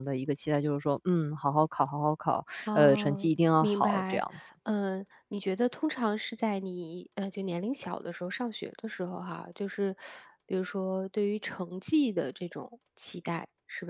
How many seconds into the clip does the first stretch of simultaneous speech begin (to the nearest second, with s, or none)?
3 s